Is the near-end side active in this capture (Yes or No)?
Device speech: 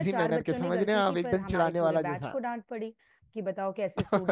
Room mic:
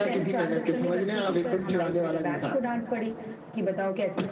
No